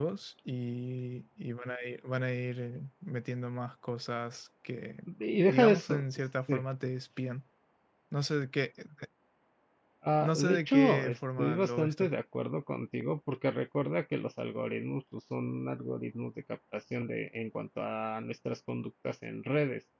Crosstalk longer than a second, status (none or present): present